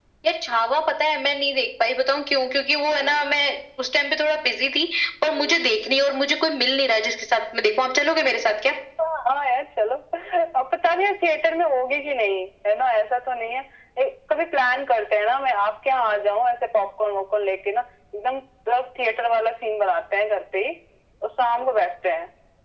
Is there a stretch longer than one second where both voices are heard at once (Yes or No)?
No